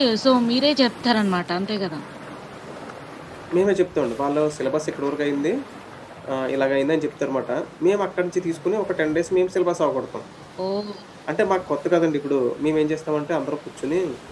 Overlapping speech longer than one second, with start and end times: none

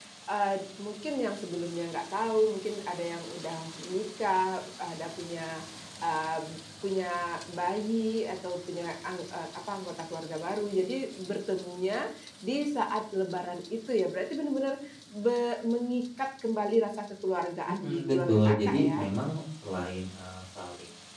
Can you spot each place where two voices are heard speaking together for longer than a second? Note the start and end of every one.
17.6-19.1

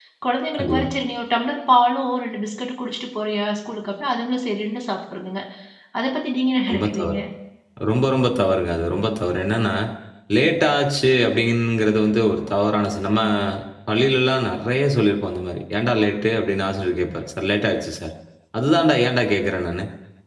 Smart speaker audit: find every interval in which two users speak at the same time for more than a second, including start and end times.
none

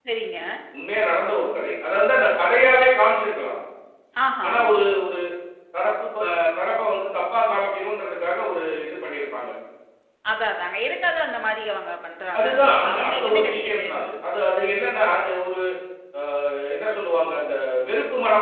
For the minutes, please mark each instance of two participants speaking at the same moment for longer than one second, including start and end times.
12.4-13.8

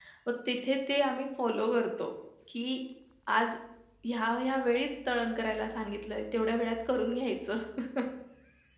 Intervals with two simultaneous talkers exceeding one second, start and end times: none

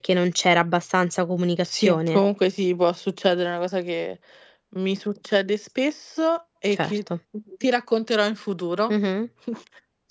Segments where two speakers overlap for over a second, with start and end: none

